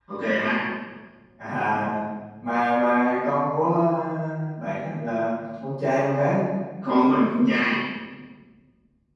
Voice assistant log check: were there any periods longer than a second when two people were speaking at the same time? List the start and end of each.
none

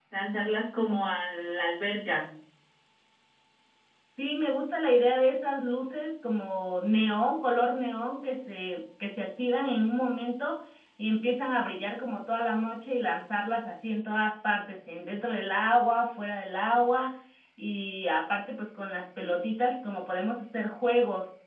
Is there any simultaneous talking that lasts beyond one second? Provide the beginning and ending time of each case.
none

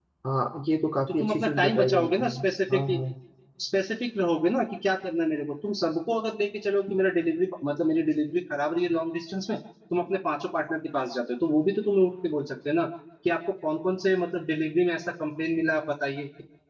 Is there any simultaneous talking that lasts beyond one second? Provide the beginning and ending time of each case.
1.1-2.4

